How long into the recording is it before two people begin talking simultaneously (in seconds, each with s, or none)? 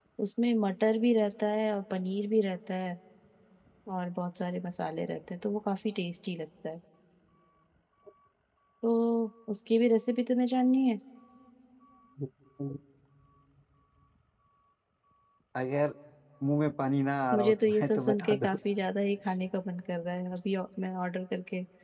17.3 s